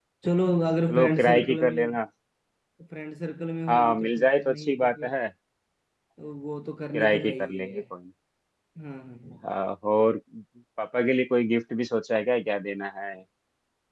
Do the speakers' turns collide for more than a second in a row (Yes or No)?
Yes